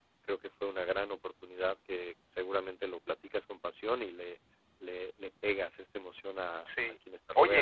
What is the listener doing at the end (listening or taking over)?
taking over